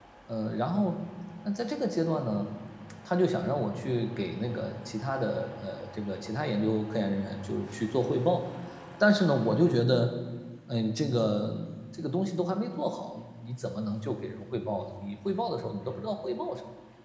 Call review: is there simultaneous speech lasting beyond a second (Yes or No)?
No